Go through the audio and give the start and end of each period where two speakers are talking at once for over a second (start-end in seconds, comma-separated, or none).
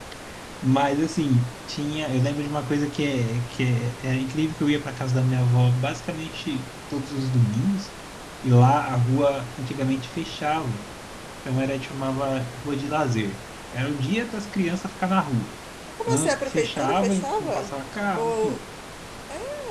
16.1-17.7